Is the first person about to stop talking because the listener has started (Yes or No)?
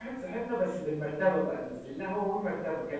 No